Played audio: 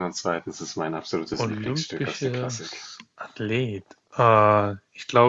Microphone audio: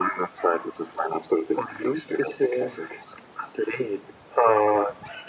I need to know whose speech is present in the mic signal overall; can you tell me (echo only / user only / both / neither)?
echo only